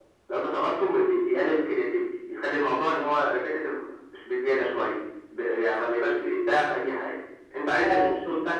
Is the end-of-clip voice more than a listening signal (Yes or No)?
No